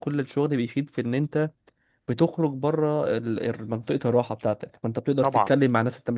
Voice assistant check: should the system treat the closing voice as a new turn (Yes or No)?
No